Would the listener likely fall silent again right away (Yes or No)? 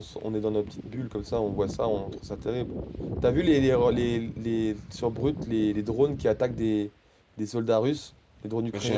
No